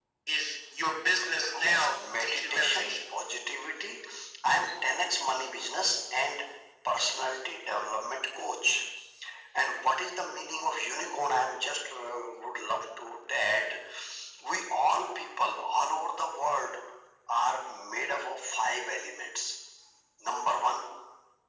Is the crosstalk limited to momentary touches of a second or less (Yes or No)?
No